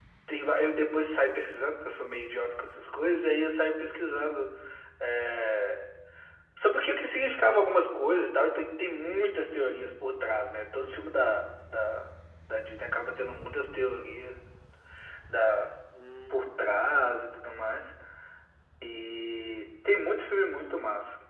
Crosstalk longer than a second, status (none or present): none